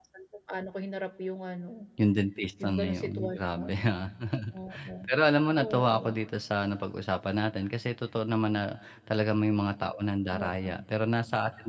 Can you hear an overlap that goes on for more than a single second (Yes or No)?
Yes